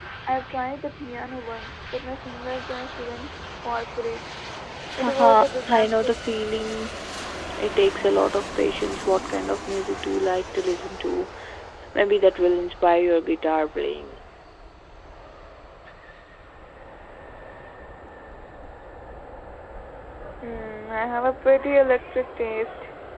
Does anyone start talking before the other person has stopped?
Yes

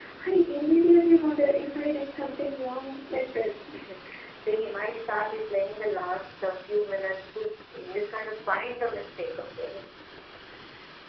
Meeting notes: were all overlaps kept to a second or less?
Yes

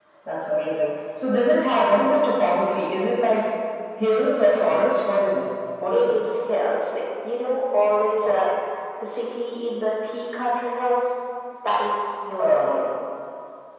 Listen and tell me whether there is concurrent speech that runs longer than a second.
No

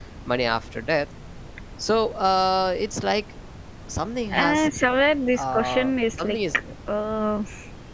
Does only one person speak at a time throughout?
No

